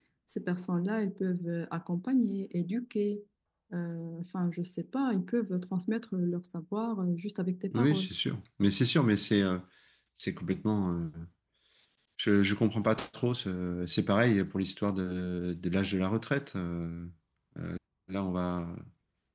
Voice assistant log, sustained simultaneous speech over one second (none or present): none